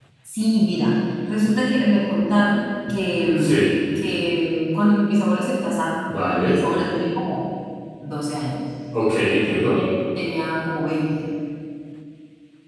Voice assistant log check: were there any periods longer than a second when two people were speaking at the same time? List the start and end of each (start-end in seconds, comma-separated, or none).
none